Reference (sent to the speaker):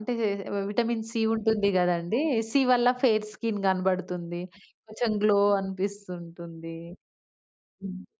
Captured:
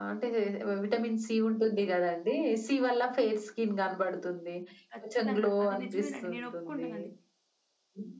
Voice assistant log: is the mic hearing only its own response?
No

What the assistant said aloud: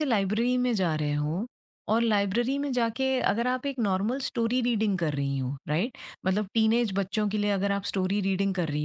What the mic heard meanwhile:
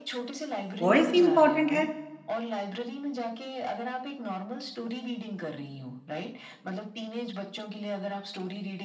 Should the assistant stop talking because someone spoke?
Yes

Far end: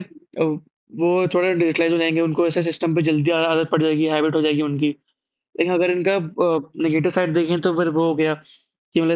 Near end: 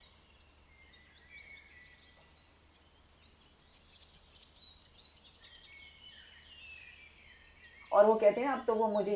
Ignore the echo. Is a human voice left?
Yes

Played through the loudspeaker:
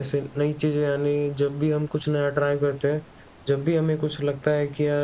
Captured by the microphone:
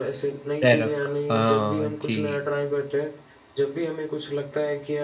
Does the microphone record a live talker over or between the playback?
Yes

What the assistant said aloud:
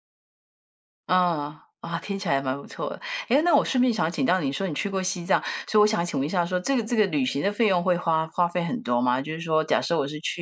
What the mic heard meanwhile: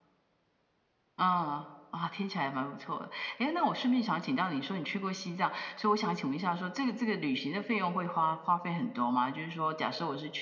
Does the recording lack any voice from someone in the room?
Yes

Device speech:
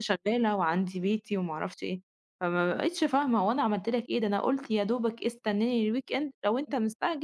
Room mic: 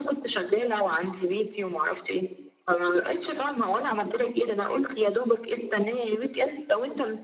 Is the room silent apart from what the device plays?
Yes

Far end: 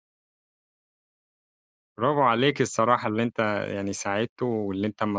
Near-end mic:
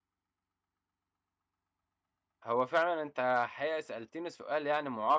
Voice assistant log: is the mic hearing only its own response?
No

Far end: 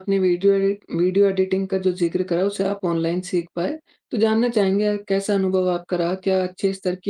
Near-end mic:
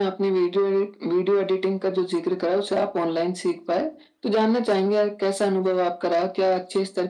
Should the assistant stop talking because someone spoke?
No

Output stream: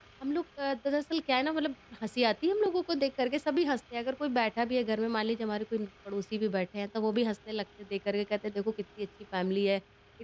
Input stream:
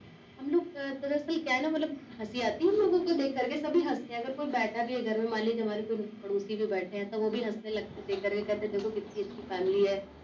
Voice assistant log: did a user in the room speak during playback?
No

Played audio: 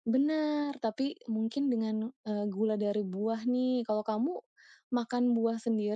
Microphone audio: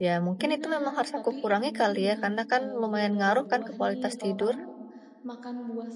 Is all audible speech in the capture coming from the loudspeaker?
No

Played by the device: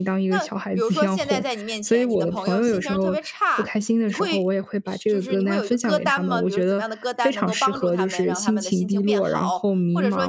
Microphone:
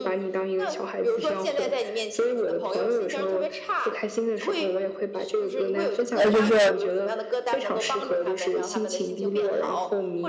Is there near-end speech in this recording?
Yes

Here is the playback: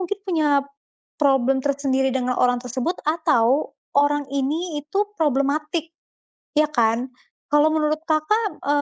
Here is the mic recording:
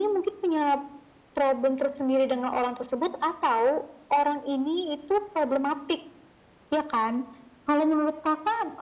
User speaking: No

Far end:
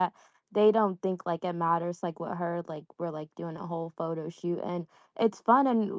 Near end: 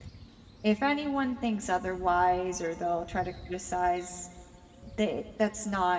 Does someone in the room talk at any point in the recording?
Yes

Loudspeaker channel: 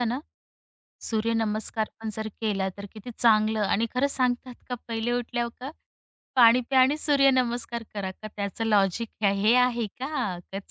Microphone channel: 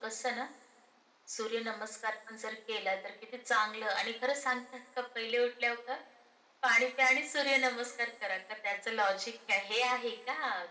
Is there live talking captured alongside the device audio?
No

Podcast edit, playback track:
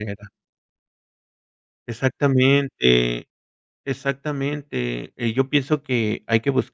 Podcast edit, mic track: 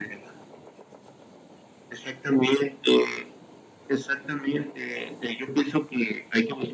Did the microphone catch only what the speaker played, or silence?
Yes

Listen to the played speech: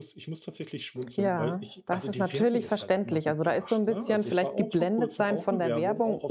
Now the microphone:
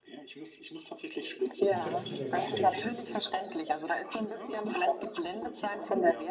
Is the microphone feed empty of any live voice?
No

